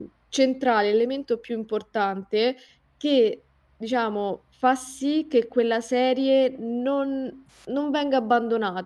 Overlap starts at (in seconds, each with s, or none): none